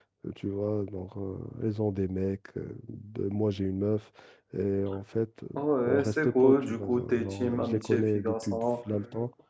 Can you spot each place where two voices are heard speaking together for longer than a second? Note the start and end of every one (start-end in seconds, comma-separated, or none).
5.8-8.6